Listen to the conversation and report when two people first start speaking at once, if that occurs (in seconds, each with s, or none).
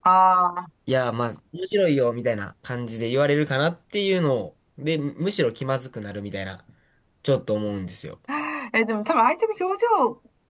none